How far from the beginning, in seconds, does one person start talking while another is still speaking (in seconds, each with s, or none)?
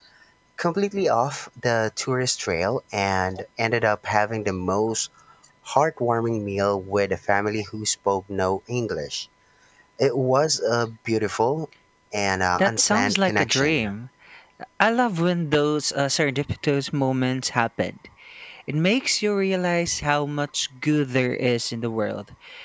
12.6 s